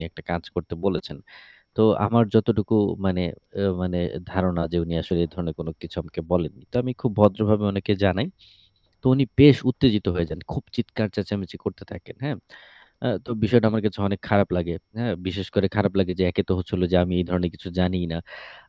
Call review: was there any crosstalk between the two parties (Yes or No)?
No